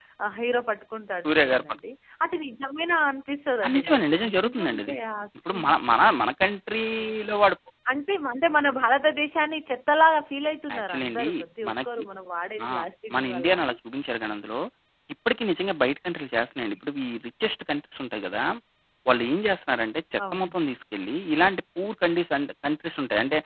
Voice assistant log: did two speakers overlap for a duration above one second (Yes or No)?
Yes